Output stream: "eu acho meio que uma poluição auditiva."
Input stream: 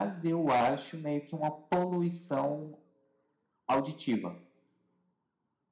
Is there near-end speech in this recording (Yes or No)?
No